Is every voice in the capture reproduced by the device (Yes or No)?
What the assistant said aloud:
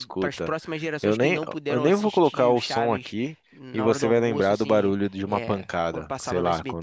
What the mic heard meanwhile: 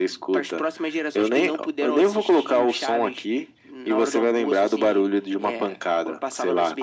Yes